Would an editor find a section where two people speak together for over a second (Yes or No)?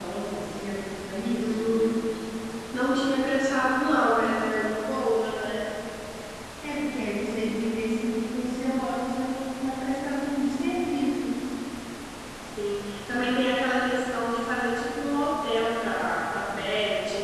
No